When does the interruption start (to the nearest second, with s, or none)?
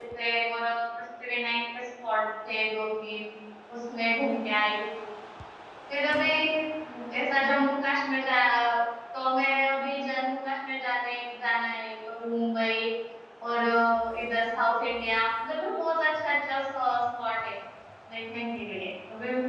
none